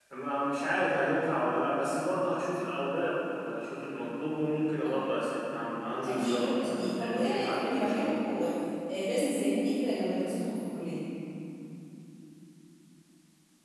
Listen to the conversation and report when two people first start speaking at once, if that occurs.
6.1 s

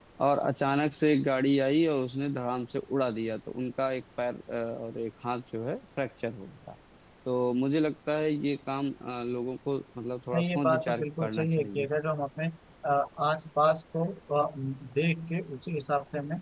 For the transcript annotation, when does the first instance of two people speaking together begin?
10.3 s

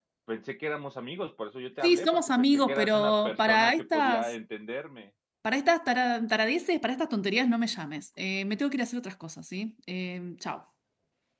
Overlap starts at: 1.8 s

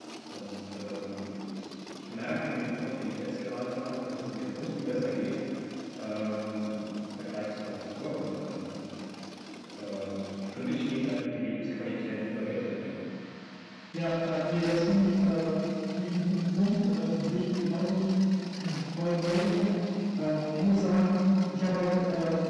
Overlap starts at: none

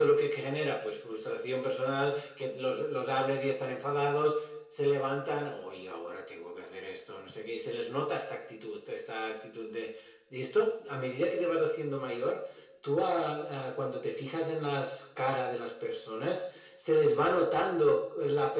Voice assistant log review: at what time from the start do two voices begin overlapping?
none

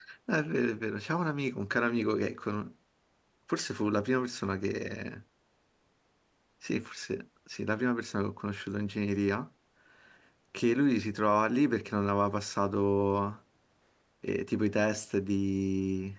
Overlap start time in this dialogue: none

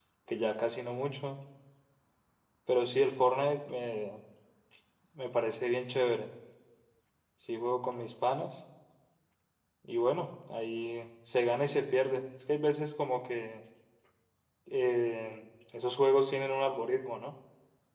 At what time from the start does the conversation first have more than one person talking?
none

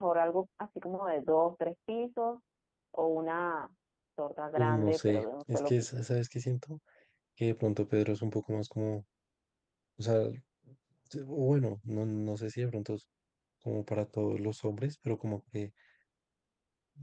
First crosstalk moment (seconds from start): 4.6 s

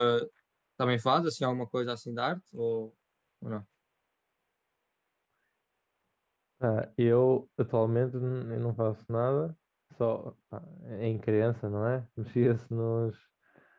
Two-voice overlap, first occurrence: none

